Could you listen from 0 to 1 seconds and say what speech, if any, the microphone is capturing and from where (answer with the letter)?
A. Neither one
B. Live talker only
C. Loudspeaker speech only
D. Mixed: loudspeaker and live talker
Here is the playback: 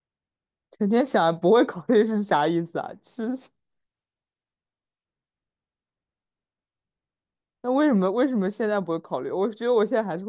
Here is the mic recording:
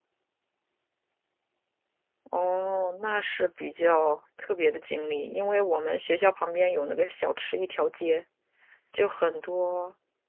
A